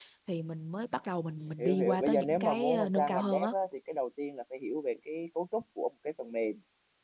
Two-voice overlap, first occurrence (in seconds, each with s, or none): 1.6 s